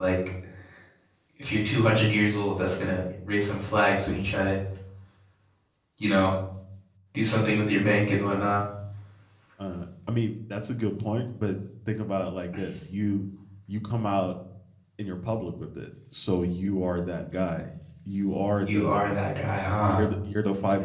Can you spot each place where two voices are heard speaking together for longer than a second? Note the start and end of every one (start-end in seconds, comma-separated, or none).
none